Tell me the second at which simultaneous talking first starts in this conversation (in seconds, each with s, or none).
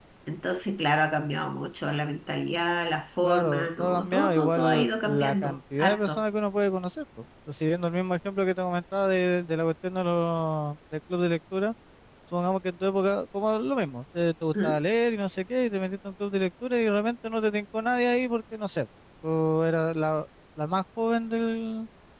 3.2 s